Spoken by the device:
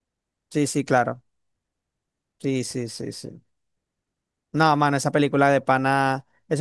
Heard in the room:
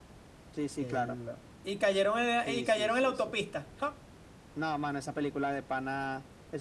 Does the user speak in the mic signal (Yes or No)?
Yes